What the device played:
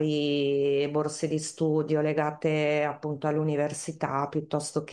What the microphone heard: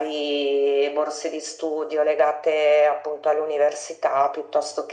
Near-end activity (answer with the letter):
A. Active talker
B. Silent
B